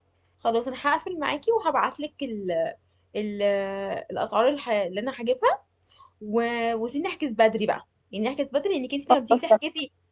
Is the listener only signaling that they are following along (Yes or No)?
Yes